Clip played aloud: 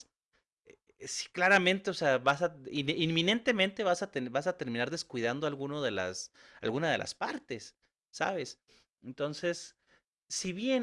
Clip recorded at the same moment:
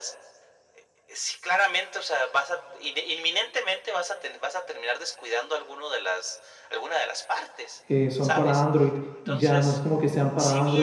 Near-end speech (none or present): present